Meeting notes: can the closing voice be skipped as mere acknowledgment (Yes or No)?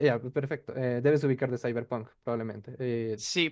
No